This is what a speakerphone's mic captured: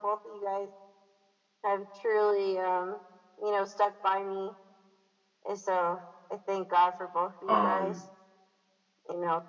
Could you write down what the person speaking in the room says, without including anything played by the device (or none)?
um